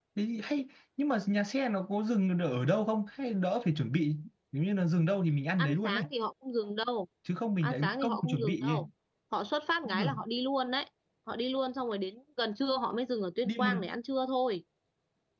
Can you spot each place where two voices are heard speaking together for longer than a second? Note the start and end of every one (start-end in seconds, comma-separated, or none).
7.6-8.8